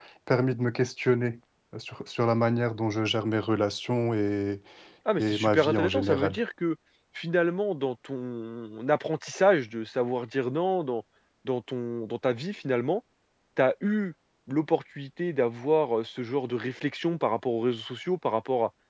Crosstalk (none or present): present